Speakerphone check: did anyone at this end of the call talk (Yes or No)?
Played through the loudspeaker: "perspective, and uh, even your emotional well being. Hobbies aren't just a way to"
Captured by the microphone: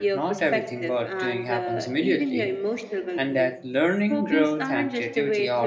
Yes